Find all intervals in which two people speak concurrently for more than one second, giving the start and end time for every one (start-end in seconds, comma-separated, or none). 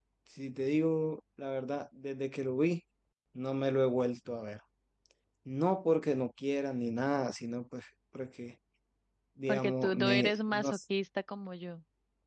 9.5-10.8